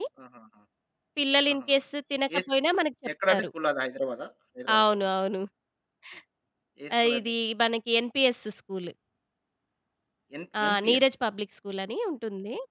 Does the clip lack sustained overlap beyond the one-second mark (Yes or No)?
Yes